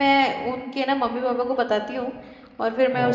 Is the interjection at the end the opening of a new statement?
No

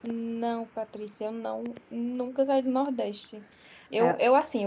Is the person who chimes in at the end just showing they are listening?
Yes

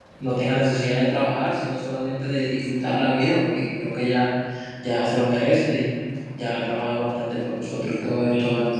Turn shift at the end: Yes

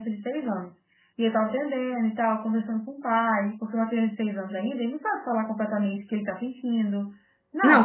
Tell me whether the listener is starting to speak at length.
Yes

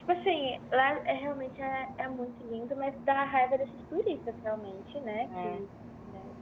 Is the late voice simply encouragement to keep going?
Yes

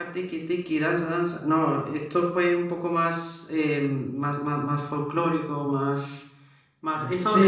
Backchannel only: No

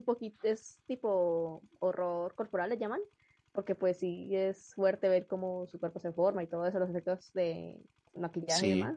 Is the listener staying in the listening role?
Yes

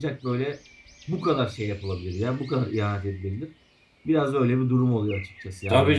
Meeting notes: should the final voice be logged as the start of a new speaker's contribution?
Yes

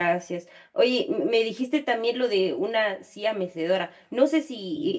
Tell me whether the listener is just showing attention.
Yes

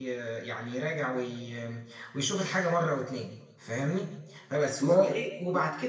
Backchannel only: Yes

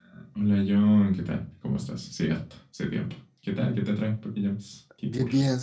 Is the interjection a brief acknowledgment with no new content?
No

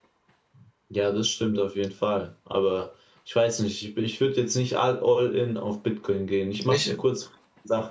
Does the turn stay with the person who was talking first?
Yes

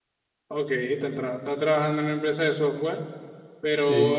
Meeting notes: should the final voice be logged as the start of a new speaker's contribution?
No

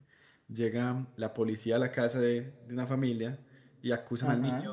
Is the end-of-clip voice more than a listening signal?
No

